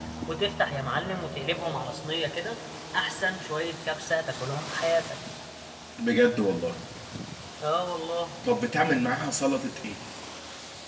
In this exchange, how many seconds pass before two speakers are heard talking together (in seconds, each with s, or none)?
none